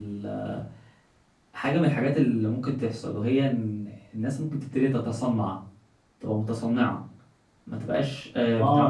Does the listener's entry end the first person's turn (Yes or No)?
Yes